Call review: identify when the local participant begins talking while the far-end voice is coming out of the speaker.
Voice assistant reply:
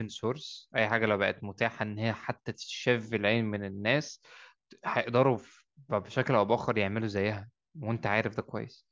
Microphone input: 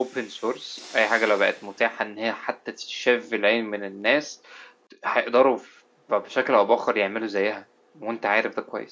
none

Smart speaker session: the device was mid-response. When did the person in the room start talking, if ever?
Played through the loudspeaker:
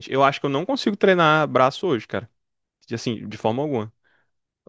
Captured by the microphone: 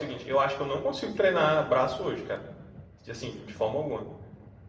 none

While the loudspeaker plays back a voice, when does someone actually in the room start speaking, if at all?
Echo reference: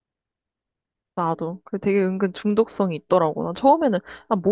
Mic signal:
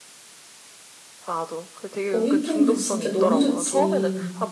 2.1 s

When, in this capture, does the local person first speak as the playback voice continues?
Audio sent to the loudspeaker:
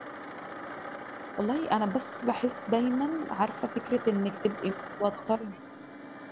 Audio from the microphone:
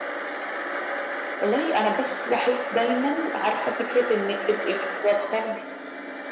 none

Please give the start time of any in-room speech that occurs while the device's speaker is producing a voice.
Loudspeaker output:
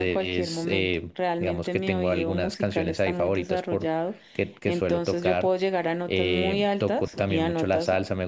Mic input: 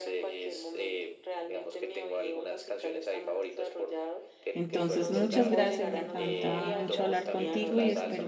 4.5 s

